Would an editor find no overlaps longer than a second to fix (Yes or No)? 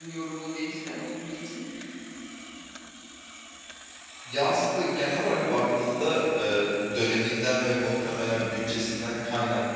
Yes